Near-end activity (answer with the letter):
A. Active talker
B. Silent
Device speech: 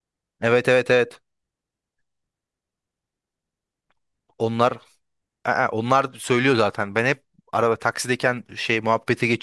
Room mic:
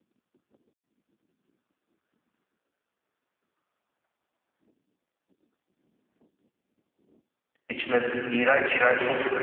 A